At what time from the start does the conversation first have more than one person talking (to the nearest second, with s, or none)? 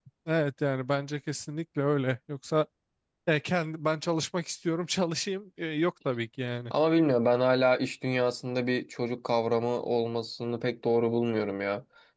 none